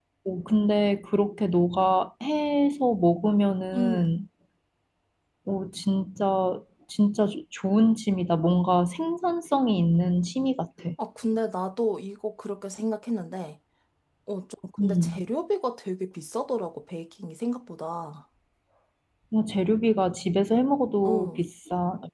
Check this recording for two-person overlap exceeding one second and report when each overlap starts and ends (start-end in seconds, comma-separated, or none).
none